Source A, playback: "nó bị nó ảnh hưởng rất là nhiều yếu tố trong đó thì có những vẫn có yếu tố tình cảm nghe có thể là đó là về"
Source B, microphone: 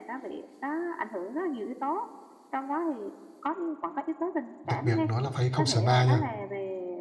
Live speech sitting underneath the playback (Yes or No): No